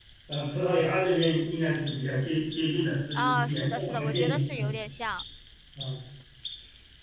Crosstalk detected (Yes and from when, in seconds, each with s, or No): Yes, from 3.2 s